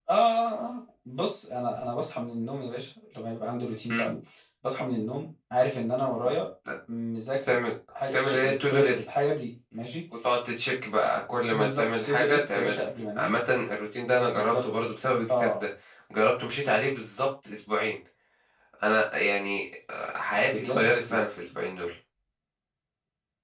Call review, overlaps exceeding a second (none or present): present